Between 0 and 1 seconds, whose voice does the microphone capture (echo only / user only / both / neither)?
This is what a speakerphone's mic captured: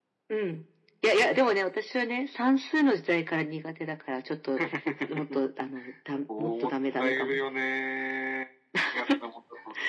echo only